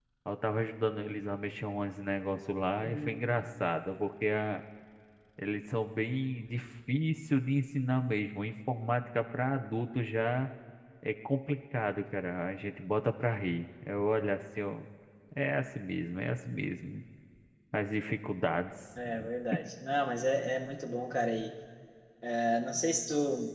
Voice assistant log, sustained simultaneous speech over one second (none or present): none